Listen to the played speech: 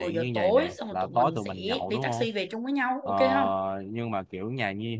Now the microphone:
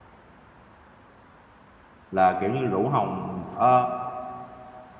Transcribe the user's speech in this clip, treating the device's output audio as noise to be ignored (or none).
là kiểu như rủ Hồng ờ,